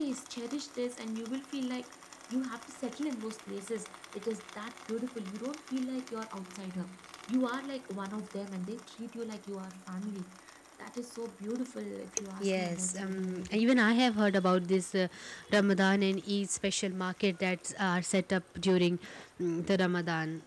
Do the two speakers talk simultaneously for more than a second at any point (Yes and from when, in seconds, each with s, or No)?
Yes, from 12.4 s